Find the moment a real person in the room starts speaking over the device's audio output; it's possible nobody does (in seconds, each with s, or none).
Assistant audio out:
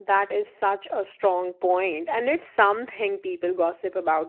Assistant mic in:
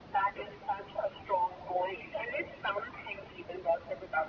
none